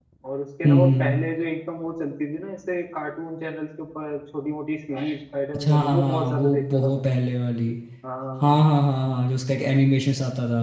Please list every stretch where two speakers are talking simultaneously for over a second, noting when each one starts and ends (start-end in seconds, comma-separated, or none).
5.5-7.0